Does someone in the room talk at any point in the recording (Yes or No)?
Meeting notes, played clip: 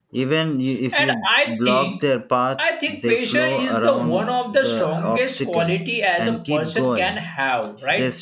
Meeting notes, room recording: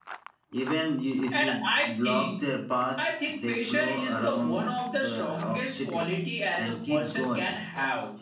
No